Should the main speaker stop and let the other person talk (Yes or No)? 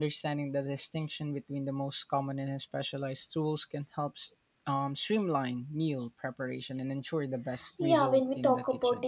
Yes